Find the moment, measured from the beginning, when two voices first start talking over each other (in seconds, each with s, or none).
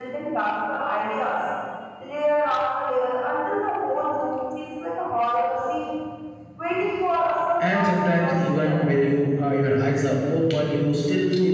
7.6 s